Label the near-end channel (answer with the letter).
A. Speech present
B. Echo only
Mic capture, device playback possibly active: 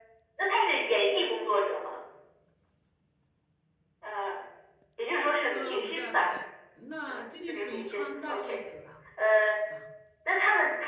A